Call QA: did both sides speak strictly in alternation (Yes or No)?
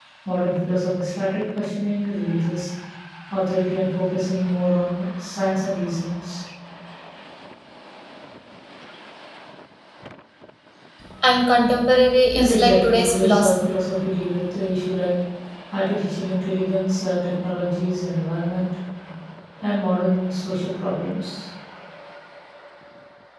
No